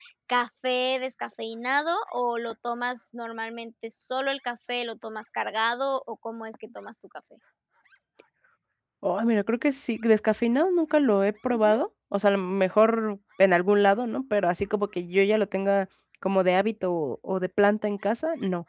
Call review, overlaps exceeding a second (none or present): none